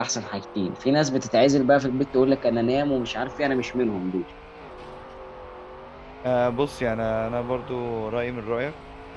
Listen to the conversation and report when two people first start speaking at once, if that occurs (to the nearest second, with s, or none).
none